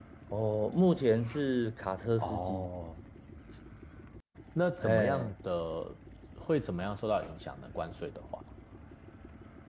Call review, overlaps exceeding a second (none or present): none